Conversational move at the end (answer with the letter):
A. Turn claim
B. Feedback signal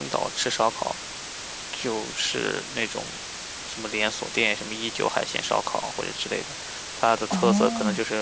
A